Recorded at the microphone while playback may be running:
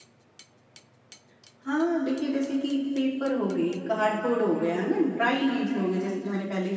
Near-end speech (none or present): present